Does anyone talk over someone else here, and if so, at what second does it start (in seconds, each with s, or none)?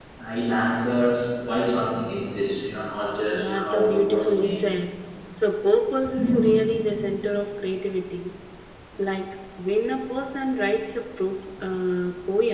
3.3 s